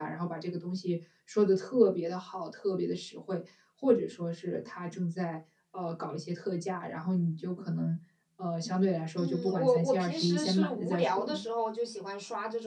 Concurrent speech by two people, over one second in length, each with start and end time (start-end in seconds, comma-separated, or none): 9.2-11.4